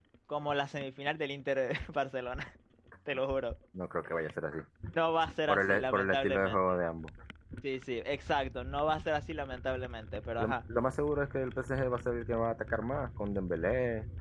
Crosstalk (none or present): present